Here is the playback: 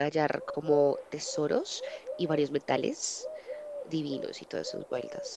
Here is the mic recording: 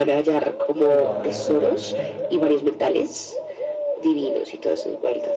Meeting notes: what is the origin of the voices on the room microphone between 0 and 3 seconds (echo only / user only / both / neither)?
both